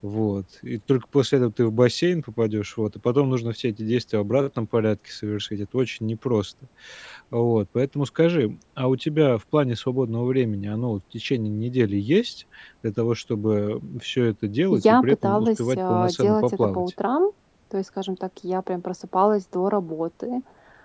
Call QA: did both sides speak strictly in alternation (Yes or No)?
No